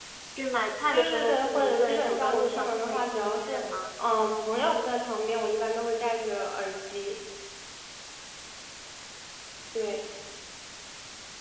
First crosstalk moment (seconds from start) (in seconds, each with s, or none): 0.9 s